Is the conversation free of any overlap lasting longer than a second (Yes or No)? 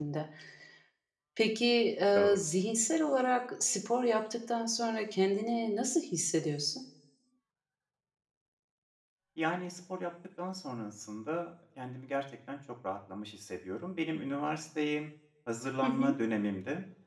Yes